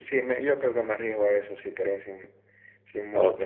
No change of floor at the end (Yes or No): No